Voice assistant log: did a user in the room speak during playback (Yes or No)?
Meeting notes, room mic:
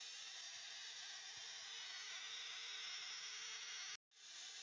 No